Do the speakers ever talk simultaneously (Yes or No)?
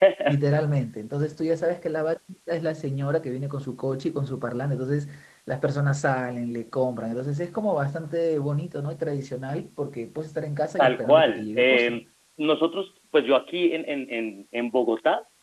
Yes